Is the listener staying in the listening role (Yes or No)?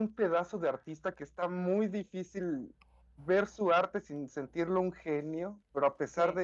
Yes